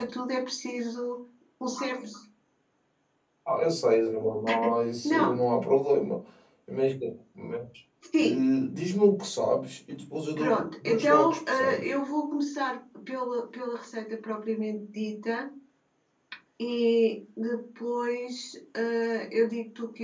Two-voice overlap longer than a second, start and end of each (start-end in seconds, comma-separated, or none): 10.4-11.9